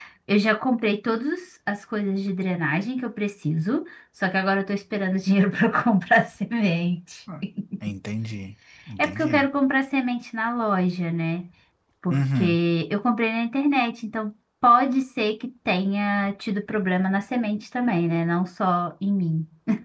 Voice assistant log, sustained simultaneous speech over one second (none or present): none